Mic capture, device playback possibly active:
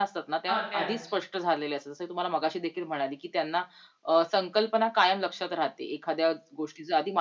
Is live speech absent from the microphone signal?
No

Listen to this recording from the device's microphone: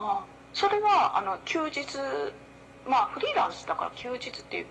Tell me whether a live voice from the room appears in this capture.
No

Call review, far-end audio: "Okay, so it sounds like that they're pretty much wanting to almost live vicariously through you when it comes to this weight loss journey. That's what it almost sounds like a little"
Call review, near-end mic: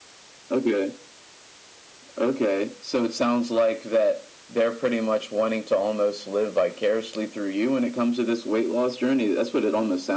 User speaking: No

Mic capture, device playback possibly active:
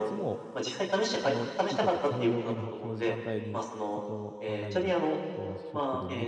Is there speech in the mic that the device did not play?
Yes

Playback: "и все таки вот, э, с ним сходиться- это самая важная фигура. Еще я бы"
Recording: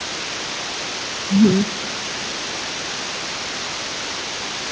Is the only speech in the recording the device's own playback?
No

